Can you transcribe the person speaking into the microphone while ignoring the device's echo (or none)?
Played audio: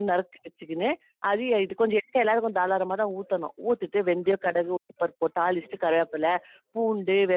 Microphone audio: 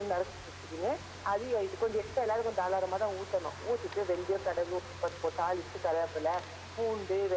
none